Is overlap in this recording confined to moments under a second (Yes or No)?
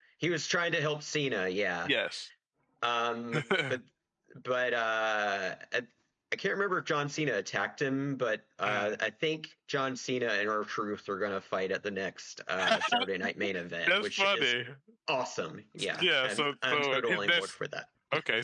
No